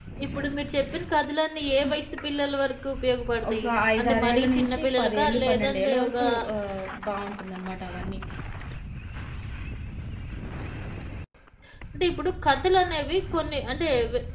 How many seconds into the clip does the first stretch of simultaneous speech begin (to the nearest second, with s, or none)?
3 s